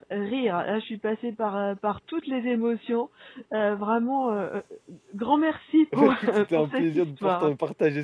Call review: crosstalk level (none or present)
present